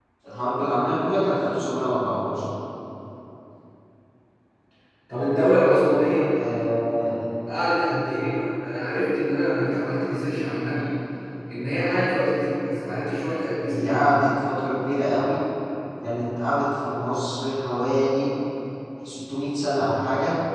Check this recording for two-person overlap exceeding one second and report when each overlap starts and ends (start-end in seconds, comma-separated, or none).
none